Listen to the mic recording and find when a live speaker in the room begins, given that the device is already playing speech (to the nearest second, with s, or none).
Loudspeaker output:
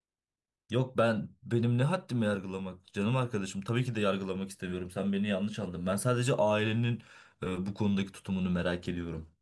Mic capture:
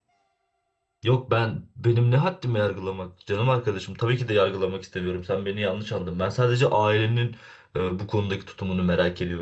none